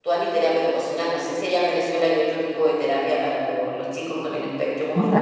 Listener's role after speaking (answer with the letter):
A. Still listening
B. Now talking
B